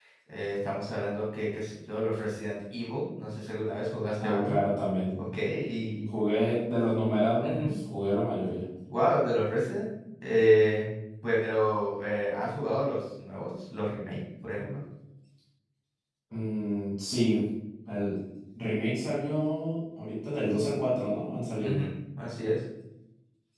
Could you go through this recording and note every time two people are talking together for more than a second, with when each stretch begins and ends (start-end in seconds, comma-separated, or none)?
none